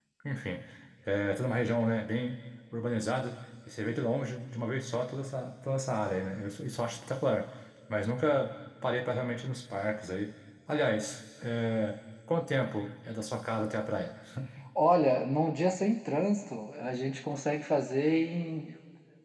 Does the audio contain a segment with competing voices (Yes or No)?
No